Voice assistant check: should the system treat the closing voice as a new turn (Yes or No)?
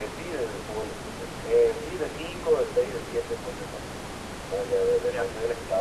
No